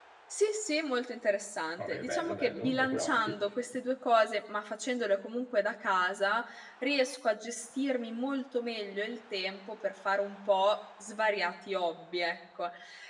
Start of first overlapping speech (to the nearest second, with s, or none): 2 s